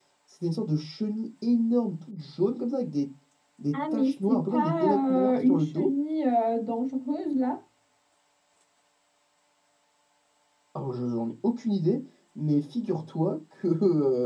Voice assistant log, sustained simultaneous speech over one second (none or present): present